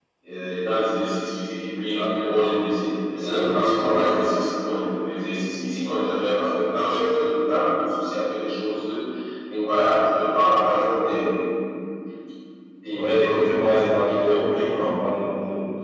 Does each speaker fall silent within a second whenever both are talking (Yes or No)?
No